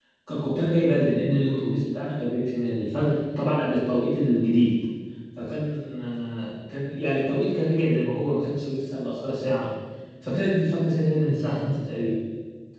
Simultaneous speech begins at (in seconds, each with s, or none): none